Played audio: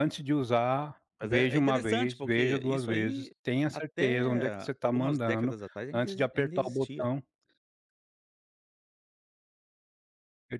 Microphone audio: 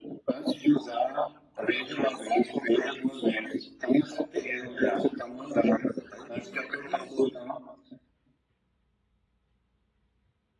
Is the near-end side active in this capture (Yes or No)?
No